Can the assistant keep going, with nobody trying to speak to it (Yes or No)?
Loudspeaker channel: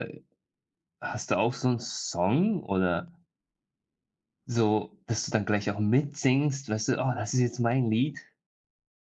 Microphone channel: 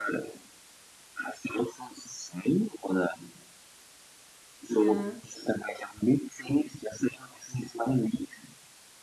No